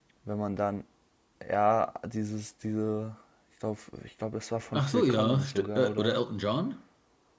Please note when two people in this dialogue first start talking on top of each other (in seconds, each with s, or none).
4.7 s